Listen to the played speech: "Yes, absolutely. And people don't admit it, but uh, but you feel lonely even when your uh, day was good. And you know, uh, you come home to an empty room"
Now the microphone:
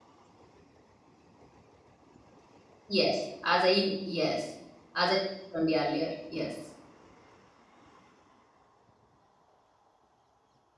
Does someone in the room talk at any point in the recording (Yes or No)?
Yes